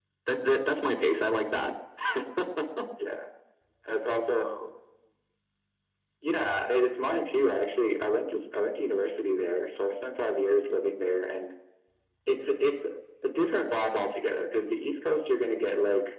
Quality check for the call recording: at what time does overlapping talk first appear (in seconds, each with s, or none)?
none